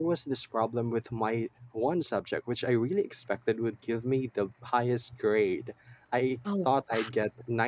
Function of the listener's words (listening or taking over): listening